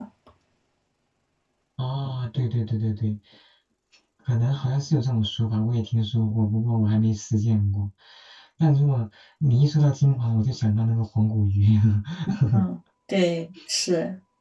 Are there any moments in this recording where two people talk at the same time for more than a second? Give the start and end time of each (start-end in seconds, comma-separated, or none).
none